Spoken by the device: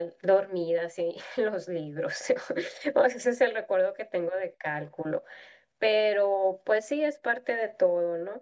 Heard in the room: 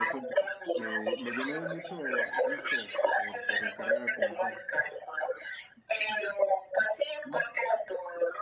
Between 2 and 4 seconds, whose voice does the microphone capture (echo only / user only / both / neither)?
both